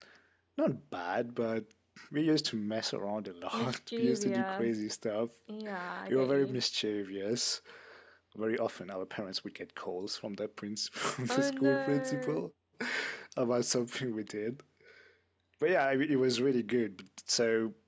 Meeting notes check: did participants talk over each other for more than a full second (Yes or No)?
Yes